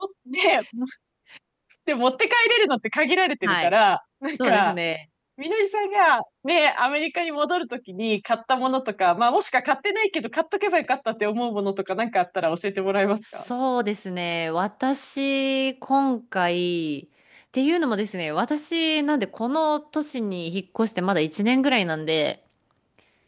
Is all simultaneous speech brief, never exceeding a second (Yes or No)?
Yes